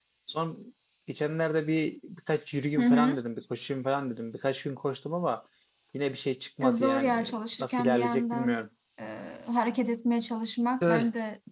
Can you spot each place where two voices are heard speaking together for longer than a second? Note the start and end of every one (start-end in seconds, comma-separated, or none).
6.6-8.6